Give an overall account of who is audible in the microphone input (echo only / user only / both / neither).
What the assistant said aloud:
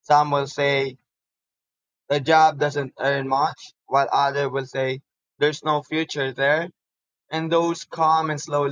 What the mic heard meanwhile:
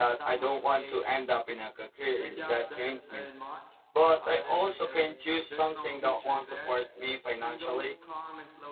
both